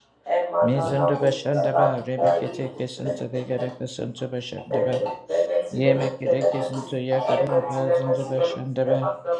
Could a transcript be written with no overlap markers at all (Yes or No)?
No